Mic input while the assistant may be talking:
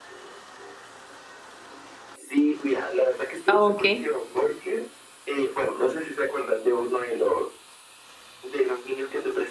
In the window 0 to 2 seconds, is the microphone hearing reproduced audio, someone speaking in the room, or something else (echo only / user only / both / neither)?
neither